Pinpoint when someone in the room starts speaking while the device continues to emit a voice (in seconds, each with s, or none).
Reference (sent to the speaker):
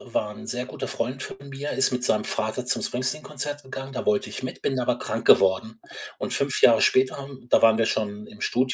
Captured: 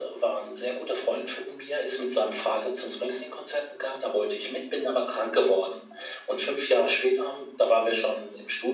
none